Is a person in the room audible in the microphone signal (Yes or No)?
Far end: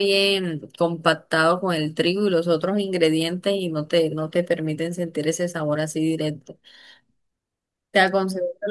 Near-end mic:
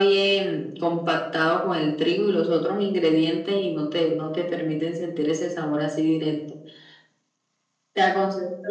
No